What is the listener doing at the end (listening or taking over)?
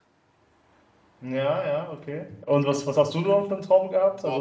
taking over